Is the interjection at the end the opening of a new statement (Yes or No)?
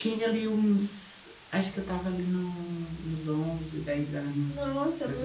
Yes